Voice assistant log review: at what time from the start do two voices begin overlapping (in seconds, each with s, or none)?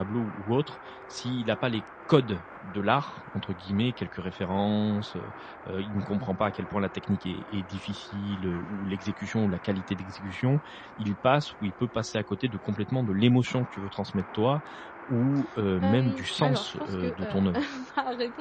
15.8 s